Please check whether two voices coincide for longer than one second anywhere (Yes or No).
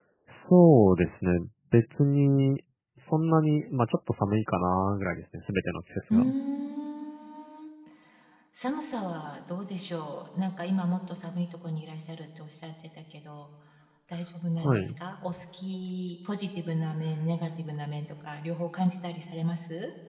No